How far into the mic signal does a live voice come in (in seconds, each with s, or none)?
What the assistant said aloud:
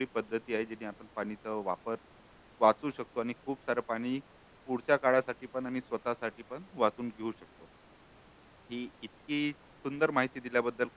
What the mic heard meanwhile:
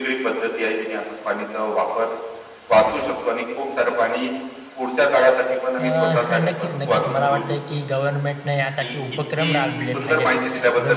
5.8 s